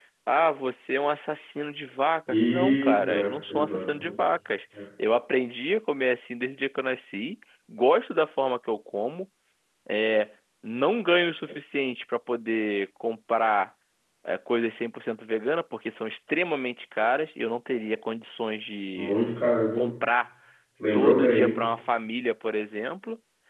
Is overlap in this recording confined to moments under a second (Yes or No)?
No